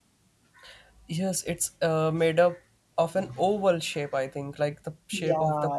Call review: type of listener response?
taking over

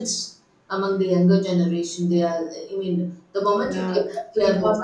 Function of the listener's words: taking over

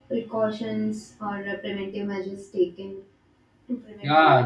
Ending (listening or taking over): taking over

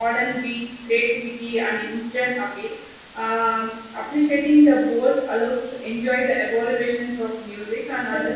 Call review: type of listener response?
taking over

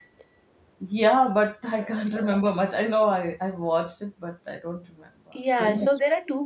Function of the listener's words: taking over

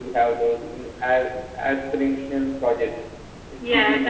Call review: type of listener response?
taking over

